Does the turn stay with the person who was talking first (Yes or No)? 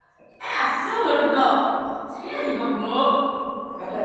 No